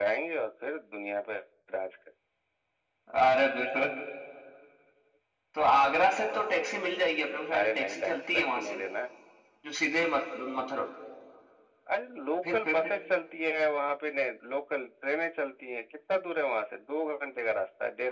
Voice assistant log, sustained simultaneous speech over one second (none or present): present